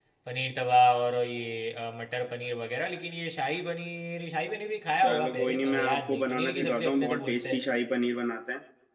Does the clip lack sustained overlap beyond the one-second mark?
No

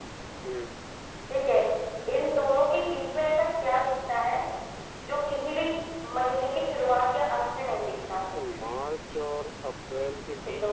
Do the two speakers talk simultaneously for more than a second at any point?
No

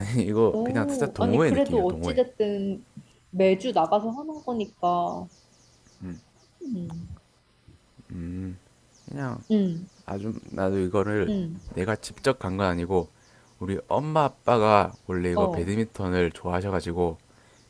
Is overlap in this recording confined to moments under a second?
No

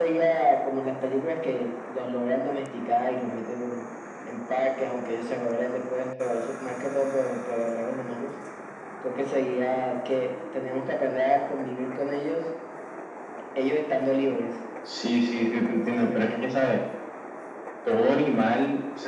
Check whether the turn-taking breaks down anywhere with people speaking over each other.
Yes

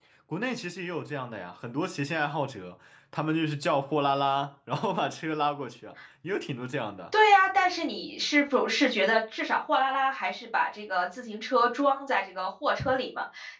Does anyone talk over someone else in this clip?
No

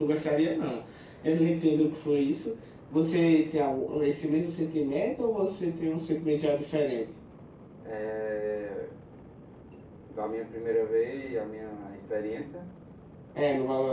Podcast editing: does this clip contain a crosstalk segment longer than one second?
No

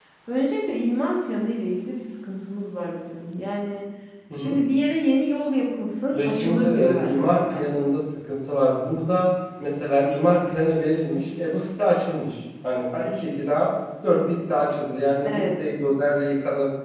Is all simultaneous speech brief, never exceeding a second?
No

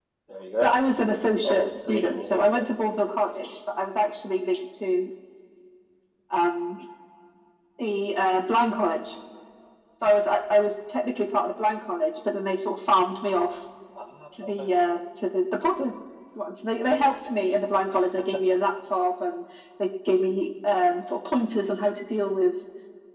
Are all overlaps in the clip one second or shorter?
No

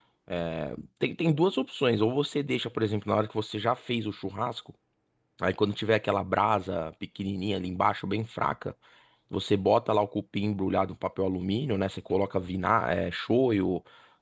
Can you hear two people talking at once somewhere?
No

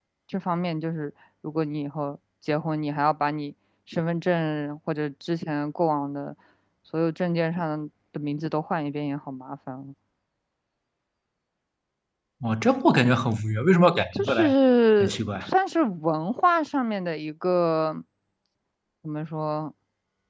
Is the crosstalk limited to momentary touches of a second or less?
Yes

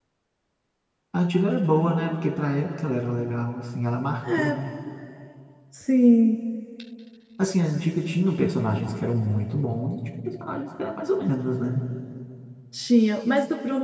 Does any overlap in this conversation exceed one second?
No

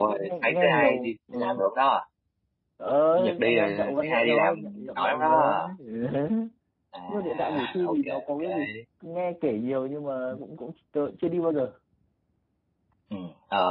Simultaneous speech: Yes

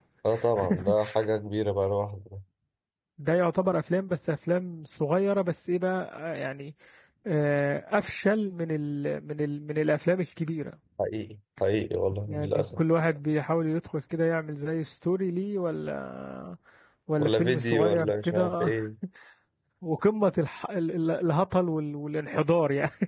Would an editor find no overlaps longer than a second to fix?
No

